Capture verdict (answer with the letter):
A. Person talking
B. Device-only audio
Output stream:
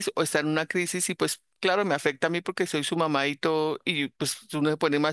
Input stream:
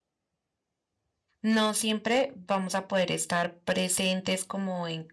A